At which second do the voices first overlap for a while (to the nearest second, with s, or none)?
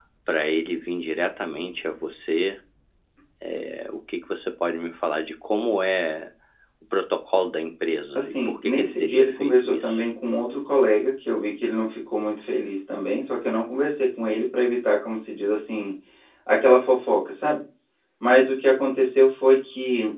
8 s